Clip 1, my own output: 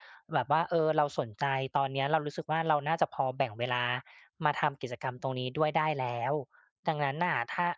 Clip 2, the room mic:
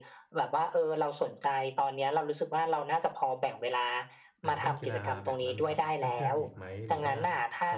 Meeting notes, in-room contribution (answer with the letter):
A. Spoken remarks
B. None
A